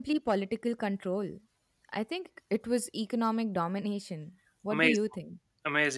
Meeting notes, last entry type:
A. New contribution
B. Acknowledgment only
A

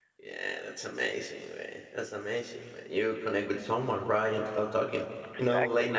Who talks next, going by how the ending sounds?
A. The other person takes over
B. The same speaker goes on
B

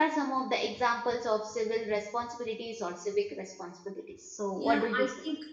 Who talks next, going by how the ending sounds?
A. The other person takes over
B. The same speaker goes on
A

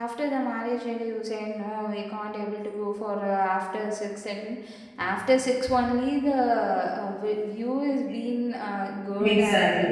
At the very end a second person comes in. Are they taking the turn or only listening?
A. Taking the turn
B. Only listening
A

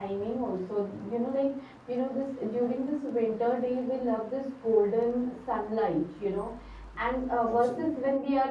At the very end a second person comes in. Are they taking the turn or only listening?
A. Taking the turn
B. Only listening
B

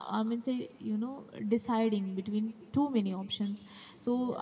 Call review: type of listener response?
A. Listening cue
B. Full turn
A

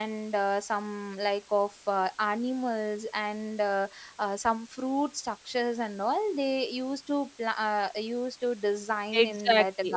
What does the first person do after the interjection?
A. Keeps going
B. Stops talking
B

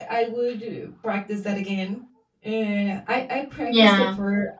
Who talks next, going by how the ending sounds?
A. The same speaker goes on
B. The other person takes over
A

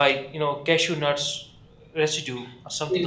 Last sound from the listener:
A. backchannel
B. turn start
B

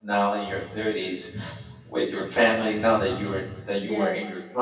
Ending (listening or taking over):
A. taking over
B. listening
B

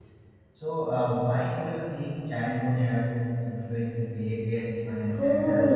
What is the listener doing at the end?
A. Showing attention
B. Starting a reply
B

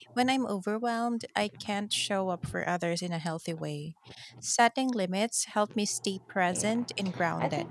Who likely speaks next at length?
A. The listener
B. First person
A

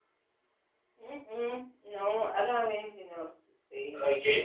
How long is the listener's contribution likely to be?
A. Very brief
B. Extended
B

